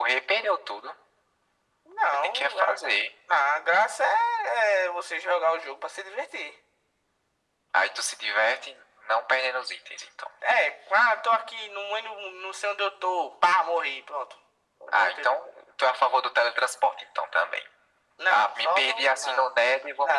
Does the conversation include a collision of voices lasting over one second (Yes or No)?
Yes